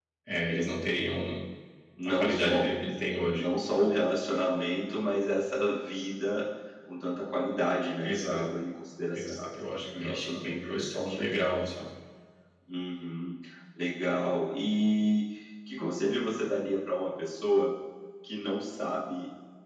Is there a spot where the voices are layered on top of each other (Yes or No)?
Yes